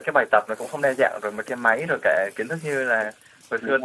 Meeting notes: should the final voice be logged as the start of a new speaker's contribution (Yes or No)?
No